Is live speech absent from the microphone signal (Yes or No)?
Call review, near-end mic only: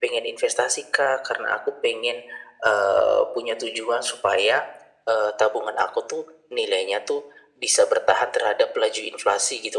Yes